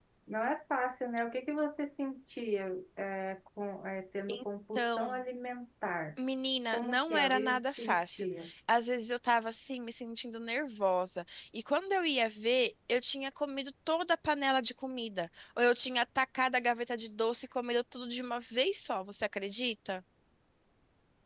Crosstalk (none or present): present